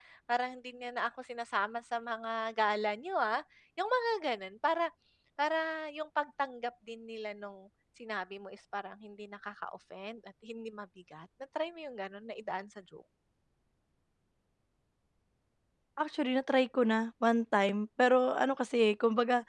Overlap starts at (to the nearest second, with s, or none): none